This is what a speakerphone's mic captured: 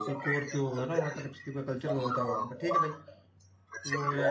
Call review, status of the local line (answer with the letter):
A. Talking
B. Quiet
A